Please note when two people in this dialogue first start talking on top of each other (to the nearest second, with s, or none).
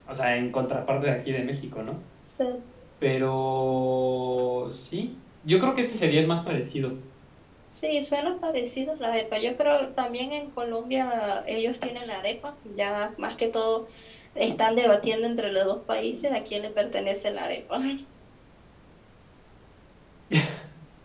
none